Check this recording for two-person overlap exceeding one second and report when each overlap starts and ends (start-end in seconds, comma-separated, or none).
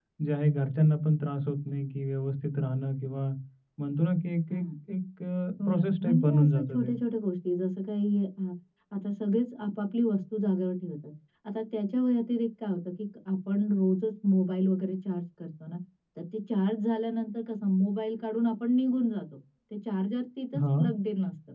5.7-6.9